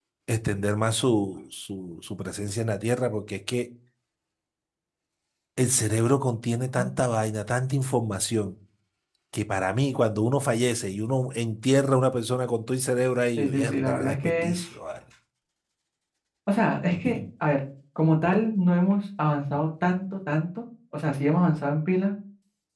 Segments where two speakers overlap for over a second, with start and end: 13.4-14.6

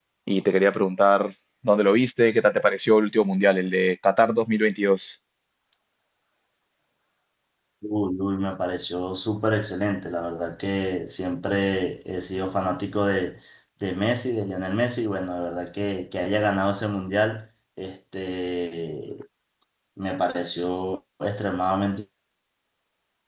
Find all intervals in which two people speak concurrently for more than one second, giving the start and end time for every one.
none

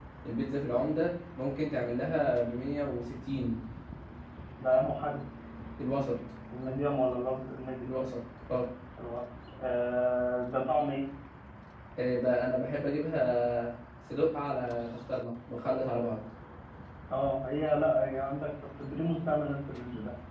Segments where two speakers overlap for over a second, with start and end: none

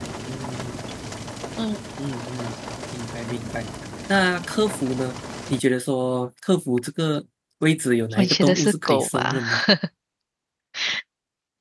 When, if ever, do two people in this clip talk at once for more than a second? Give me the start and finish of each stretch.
8.2-9.4

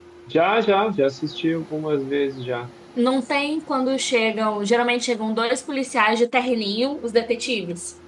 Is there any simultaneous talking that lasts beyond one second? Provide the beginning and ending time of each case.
none

